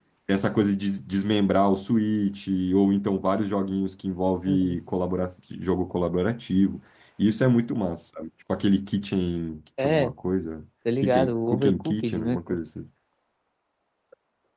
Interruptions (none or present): present